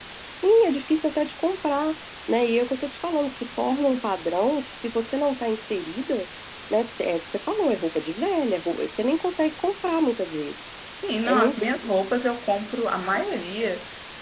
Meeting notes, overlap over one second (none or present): none